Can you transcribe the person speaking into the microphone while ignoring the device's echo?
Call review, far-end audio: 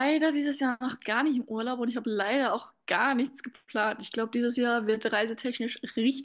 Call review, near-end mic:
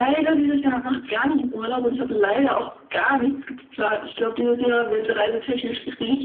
none

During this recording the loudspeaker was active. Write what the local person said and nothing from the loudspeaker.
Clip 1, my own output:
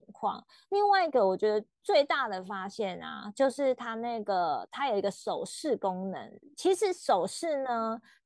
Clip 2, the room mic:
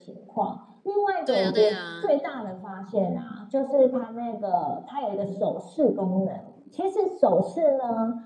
对啊，对啊，

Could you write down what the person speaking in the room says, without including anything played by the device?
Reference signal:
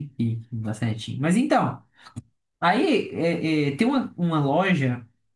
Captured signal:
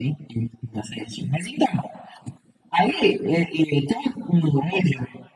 none

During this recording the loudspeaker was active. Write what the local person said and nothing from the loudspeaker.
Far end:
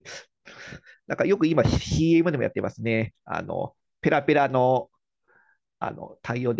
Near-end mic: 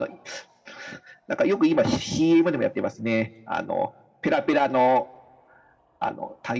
none

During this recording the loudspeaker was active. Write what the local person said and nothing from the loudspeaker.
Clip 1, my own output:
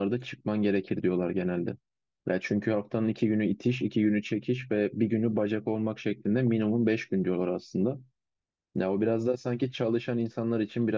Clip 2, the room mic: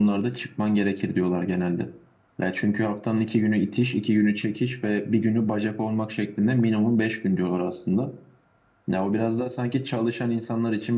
none

